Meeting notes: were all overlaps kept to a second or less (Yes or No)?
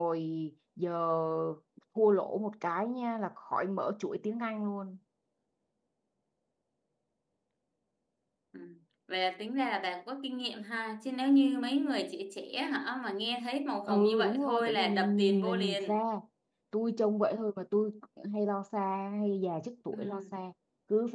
No